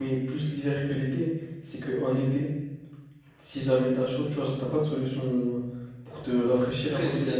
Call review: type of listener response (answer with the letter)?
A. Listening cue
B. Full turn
B